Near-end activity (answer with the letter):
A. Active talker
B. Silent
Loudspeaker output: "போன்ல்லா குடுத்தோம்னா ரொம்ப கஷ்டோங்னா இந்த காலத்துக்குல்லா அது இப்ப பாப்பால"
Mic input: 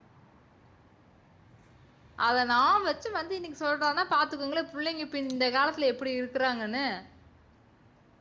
A